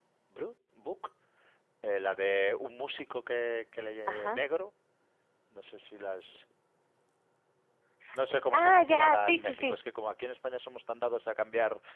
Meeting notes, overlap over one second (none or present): present